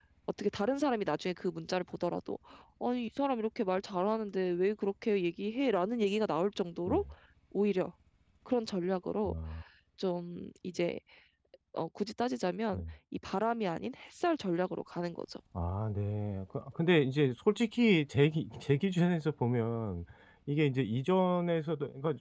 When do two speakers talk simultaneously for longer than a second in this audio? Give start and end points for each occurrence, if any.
none

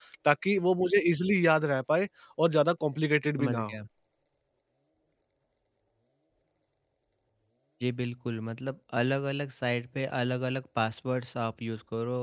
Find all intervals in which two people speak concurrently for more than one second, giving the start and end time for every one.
none

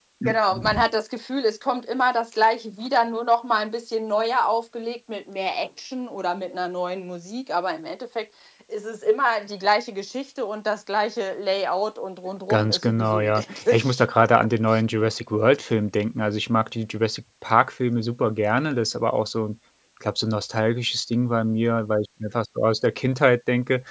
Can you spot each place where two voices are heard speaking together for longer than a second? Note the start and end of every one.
12.5-14.0

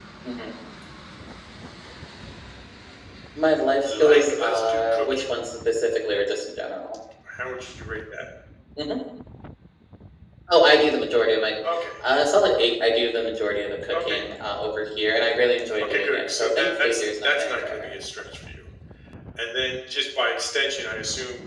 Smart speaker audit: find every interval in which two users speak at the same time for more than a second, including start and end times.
3.8-5.3, 15.8-17.9

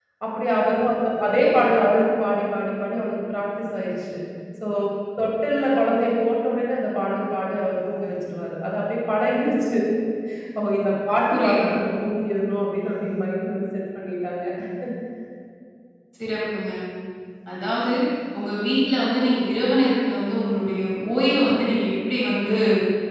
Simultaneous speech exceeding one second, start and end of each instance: none

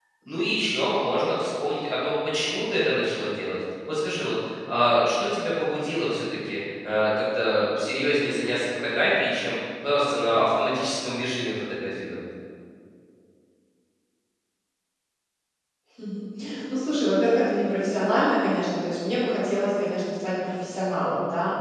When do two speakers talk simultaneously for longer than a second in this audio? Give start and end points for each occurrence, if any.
none

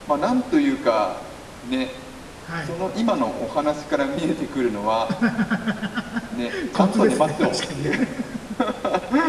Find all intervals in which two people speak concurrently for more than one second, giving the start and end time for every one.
6.7-8.0

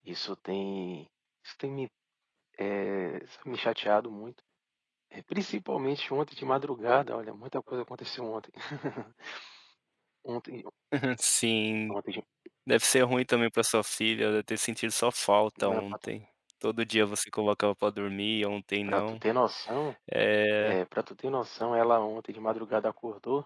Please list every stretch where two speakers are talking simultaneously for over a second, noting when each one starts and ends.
none

